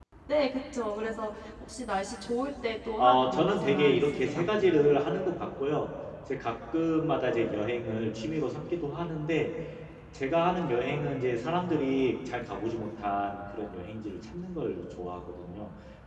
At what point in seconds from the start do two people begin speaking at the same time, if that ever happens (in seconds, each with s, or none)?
3.0 s